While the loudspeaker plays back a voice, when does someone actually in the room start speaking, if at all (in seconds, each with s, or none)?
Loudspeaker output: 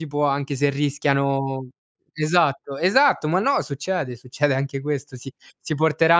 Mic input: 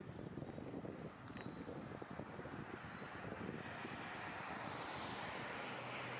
none